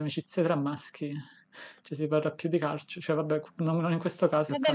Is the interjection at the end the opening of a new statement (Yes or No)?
Yes